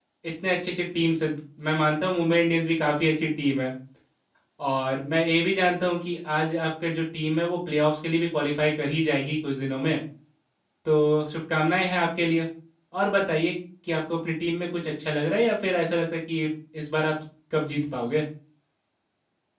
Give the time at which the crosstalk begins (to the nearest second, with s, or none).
none